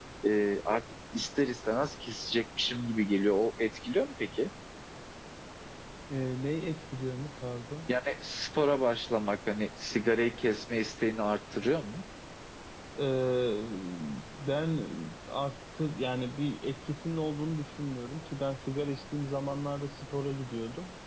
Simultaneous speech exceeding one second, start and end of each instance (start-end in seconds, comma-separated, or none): none